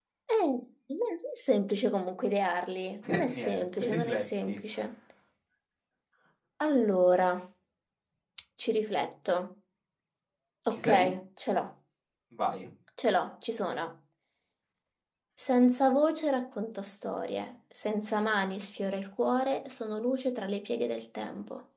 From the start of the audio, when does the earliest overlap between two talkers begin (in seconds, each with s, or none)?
3.1 s